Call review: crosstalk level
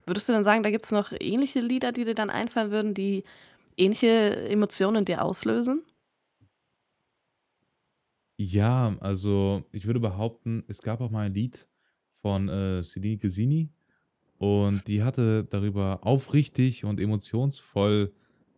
none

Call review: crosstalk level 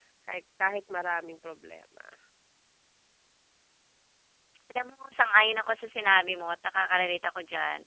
none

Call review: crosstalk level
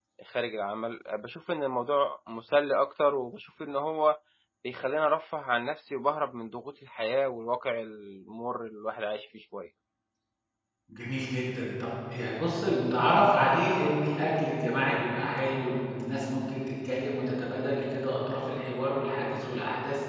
none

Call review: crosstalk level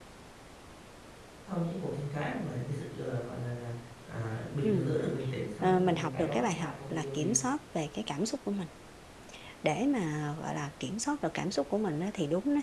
present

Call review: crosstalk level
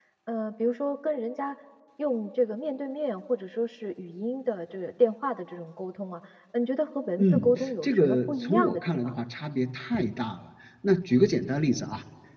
present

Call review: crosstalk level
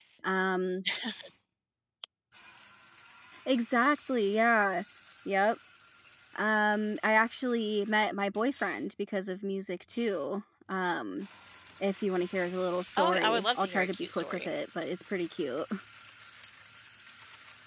present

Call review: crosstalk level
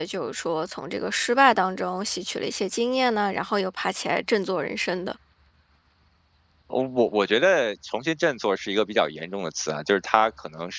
none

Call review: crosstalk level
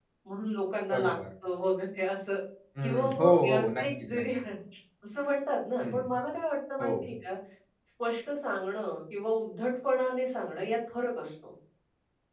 present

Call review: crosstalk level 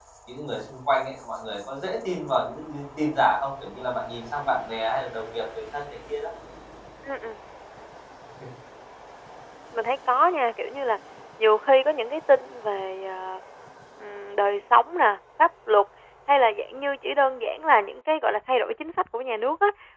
none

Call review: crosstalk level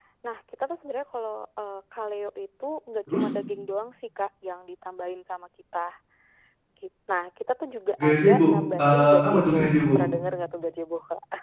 present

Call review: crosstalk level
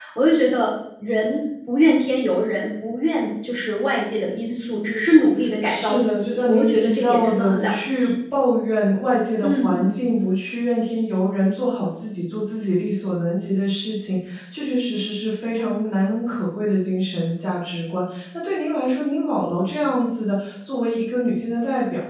present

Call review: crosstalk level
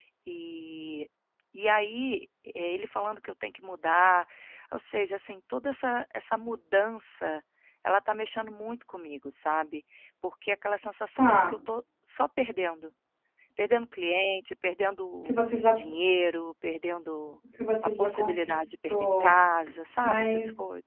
present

